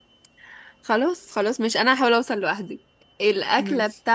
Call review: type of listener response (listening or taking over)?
listening